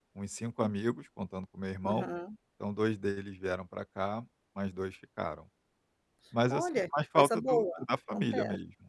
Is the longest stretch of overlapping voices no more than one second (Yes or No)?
No